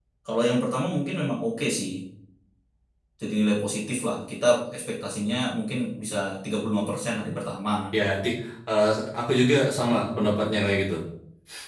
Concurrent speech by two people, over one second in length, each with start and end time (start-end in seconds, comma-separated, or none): none